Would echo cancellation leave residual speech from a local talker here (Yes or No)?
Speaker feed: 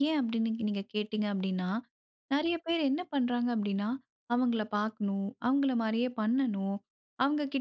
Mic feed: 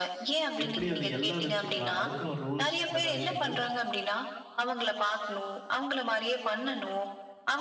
Yes